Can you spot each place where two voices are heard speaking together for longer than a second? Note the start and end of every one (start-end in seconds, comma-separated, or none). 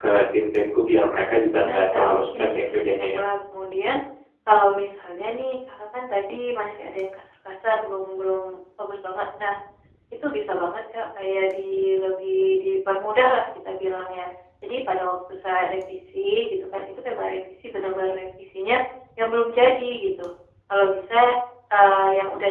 1.6-3.0